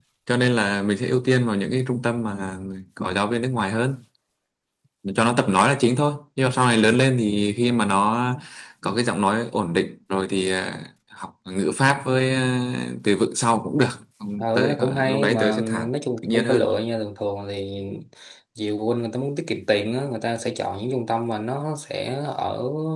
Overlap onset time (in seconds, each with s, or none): 14.4 s